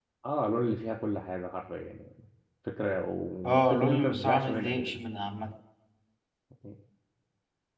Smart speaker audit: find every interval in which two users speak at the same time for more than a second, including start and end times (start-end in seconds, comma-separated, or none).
3.4-4.8